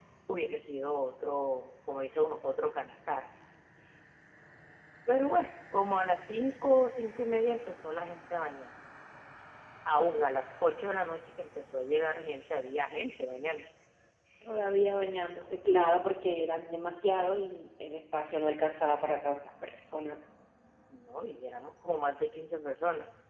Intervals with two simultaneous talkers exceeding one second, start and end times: none

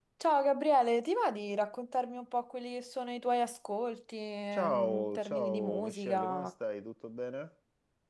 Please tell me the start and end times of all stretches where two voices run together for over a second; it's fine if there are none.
4.5-6.5

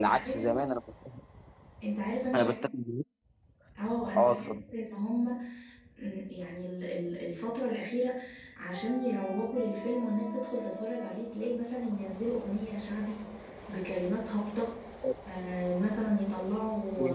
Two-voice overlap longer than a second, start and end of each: none

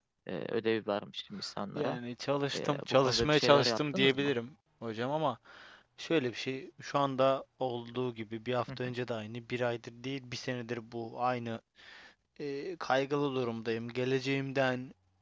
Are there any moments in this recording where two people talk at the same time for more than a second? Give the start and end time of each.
2.5-4.3

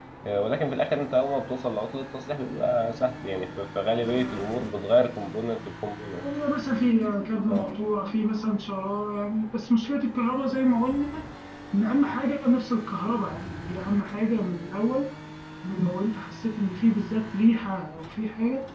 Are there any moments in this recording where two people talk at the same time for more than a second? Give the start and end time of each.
none

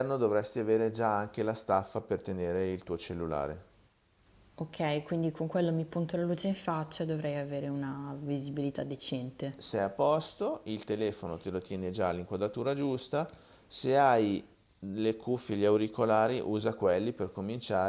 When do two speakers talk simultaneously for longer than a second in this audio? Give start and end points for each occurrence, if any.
none

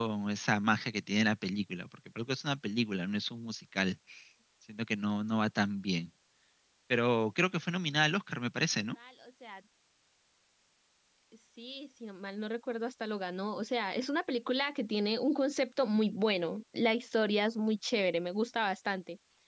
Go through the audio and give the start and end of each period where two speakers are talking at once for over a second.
none

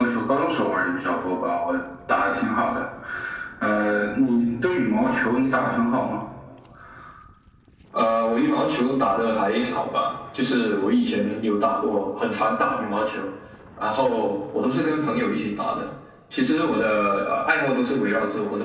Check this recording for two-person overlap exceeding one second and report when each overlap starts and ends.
none

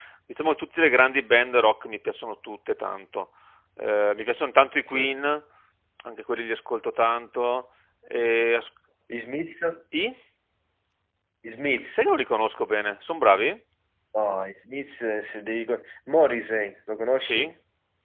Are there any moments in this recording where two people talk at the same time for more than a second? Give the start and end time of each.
none

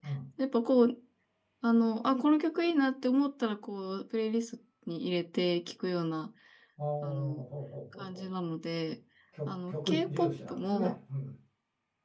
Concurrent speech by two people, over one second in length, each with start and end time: 9.5-10.9

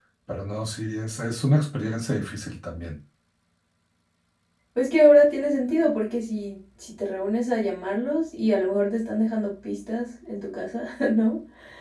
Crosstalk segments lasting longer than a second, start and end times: none

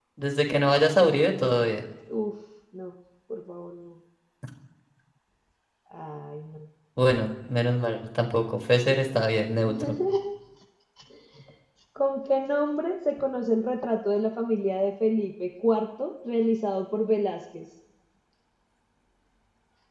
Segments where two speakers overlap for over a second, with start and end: none

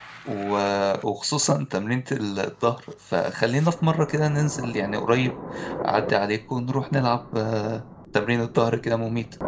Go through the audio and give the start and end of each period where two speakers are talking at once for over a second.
none

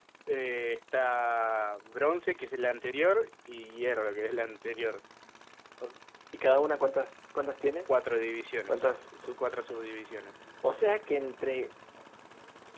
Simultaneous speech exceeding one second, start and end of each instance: none

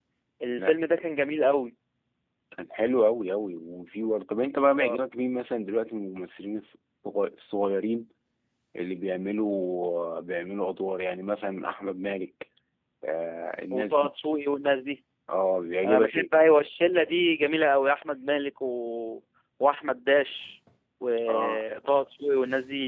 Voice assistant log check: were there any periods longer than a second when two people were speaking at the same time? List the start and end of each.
none

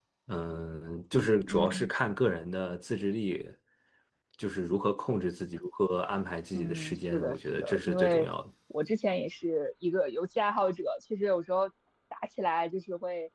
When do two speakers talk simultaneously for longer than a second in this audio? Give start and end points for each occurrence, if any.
6.6-8.3

